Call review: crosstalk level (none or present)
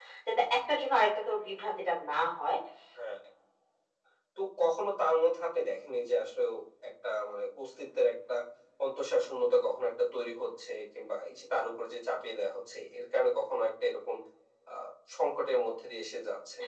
none